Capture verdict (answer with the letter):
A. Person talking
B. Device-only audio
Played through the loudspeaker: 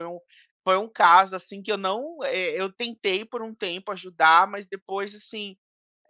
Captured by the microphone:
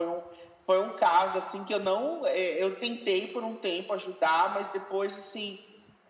B